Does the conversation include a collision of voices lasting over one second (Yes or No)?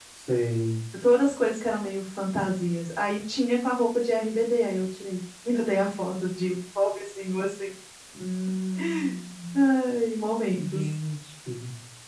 No